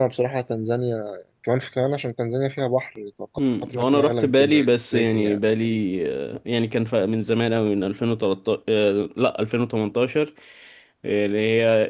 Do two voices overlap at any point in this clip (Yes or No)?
Yes